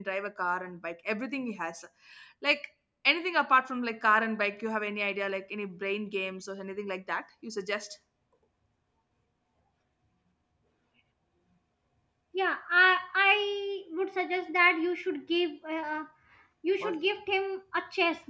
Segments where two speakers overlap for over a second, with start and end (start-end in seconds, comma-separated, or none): none